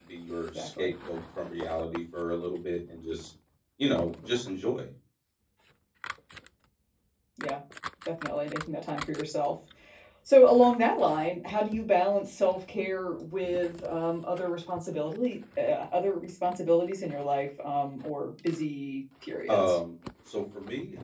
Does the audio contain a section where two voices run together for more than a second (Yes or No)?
No